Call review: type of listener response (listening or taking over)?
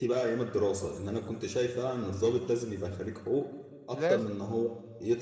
listening